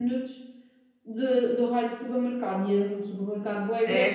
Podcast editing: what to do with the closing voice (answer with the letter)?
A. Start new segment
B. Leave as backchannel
A